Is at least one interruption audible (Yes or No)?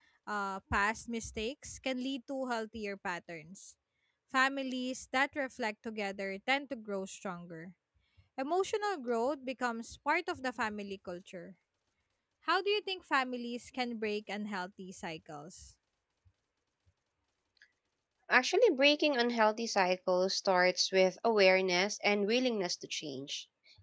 No